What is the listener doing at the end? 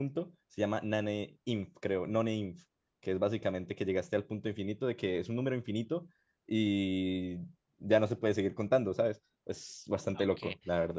taking over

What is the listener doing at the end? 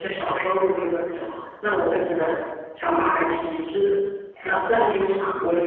listening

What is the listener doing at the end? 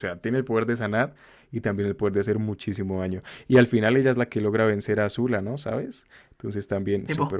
taking over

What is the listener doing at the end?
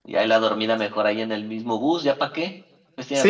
taking over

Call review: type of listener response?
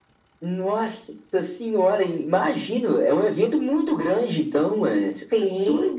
taking over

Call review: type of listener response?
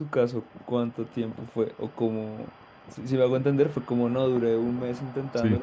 listening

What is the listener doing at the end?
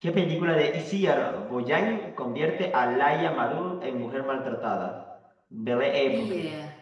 listening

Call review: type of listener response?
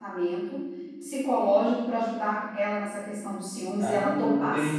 taking over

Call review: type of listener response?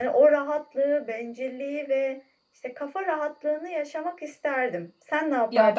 taking over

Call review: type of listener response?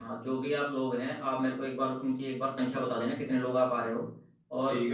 listening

